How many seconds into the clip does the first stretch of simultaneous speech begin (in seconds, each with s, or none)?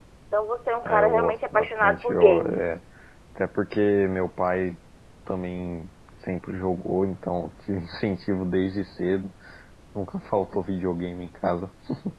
0.8 s